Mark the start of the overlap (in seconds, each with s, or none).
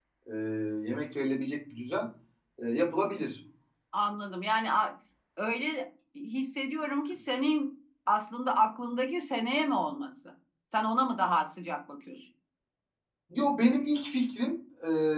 none